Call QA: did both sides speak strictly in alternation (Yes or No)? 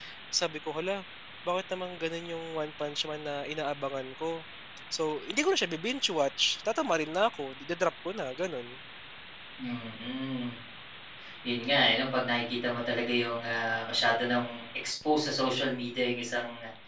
Yes